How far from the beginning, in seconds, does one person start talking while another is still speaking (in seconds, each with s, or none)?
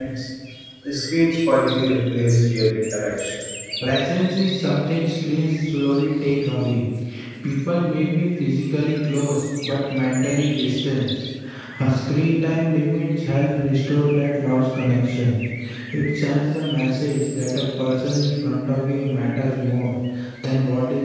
none